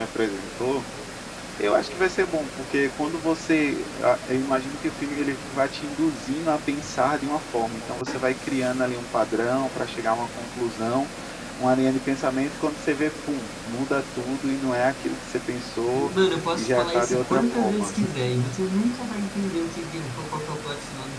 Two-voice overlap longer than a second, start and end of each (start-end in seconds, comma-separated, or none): 16.5-17.9